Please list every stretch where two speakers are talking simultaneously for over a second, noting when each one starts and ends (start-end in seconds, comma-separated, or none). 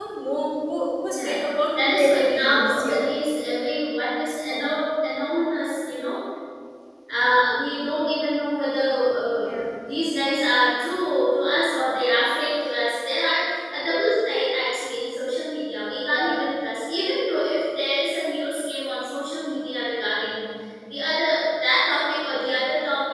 1.8-3.0